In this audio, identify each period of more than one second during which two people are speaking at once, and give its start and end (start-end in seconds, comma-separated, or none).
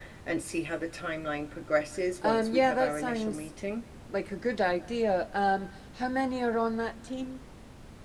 2.2-3.5